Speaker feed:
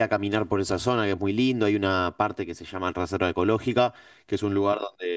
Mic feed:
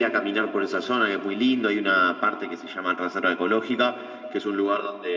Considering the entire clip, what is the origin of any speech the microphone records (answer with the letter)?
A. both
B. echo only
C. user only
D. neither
B